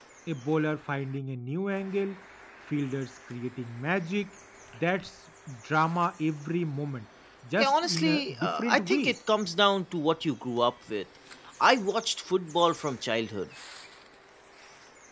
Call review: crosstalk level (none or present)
present